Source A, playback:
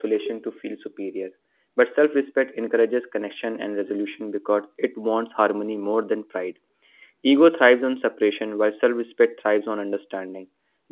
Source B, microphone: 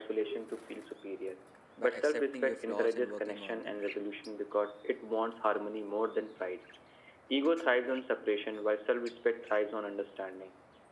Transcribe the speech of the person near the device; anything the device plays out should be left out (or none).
by accepting your flaws and working on them.